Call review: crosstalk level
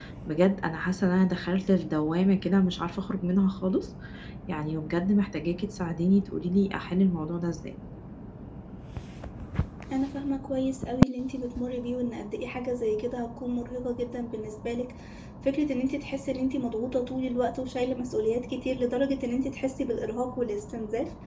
none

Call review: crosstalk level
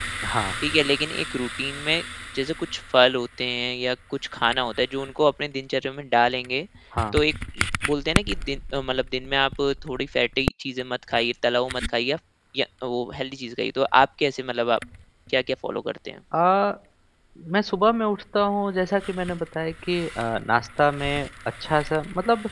none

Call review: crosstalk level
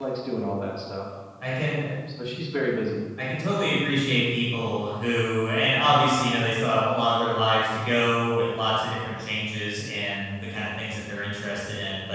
none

